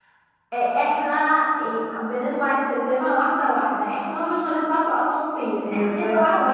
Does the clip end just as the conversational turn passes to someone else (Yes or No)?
No